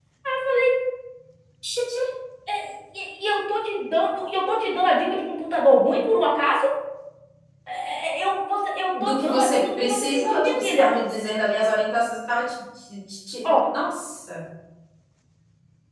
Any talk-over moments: Yes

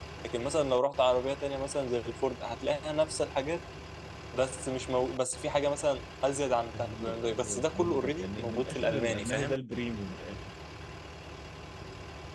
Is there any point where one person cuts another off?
Yes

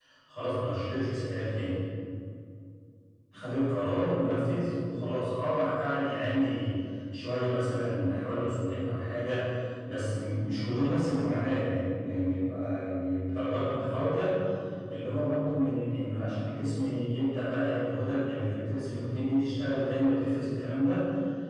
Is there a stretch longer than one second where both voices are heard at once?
No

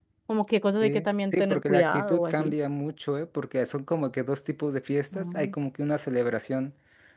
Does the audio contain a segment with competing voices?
Yes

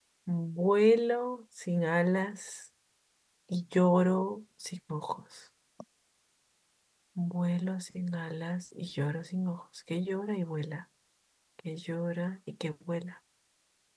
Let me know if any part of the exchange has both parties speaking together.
No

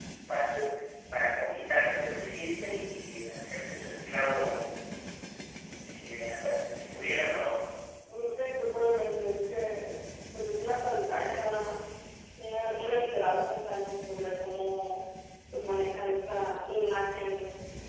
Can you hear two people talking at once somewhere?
No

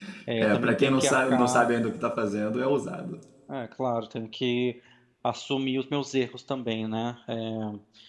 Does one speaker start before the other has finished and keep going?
Yes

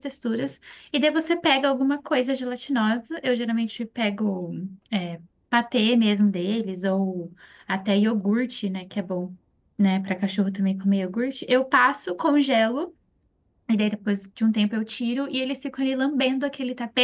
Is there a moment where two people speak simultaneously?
No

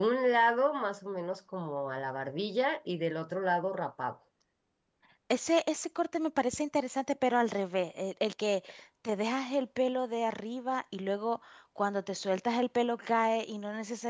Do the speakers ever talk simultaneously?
No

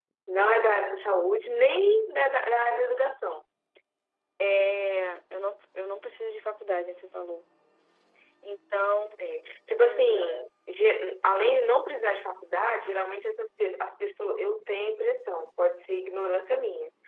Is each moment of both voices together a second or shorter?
Yes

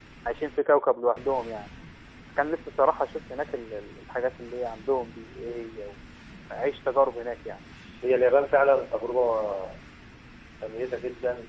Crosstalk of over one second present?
No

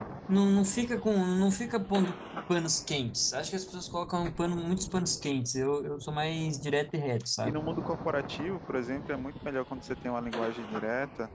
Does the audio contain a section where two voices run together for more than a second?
No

